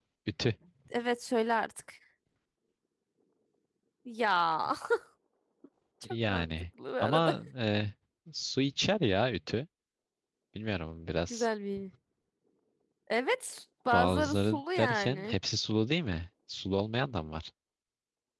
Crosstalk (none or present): present